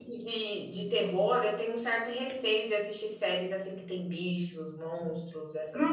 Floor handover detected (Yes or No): Yes